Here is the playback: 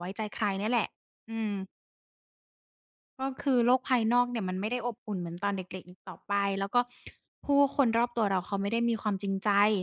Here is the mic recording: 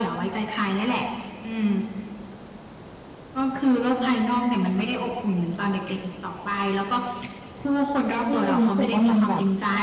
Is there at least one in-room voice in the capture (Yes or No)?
Yes